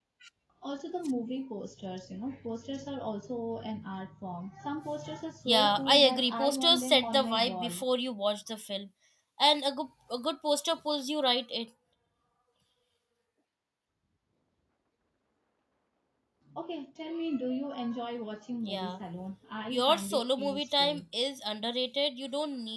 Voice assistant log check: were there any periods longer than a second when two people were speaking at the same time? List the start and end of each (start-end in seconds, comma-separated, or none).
5.4-7.8, 19.7-21.0